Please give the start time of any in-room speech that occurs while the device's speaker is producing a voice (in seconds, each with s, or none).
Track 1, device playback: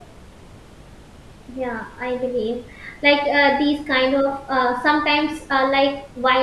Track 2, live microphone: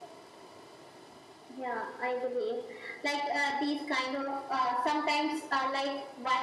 none